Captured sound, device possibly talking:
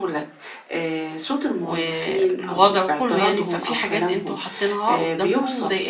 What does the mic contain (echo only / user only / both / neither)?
both